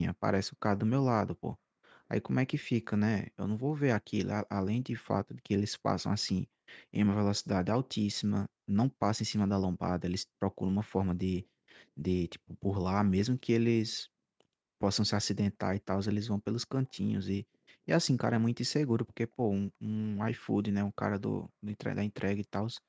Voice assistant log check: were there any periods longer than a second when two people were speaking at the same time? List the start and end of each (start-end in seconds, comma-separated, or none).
none